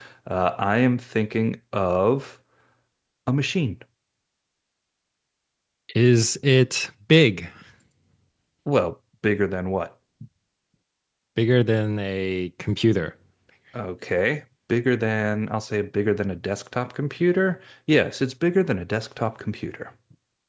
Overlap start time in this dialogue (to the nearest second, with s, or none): none